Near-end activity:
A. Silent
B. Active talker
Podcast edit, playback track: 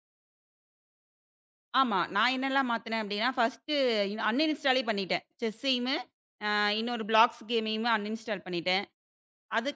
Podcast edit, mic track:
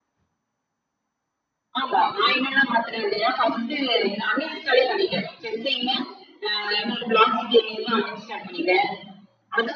A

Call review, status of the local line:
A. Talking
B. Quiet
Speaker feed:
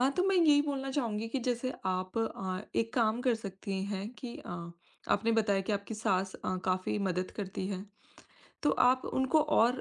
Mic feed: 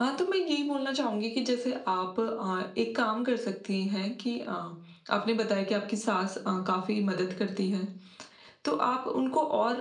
B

